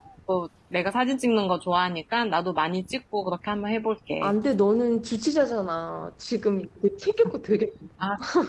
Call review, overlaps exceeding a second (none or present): none